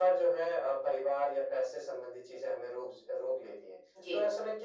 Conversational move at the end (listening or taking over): listening